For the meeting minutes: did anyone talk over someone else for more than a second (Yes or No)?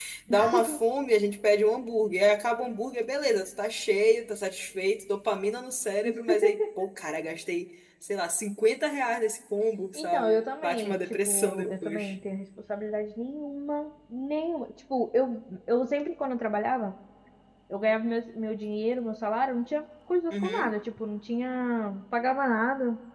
Yes